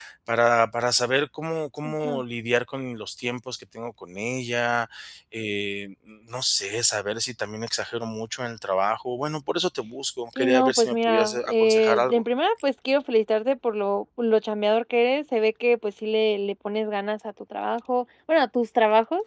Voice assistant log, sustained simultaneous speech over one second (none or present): present